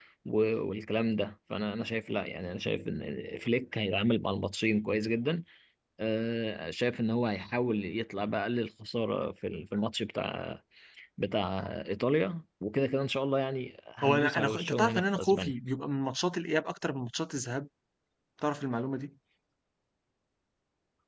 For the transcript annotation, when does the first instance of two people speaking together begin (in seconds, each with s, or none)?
14.0 s